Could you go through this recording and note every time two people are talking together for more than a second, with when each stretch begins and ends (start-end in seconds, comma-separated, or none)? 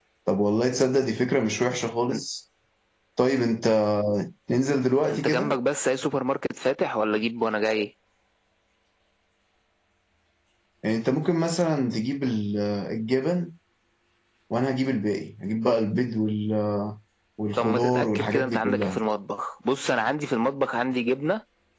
17.6-19.0